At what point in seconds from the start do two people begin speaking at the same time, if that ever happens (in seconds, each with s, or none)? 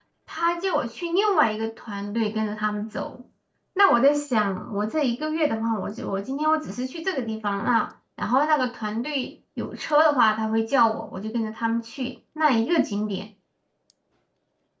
none